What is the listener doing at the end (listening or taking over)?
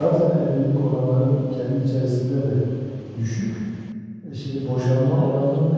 listening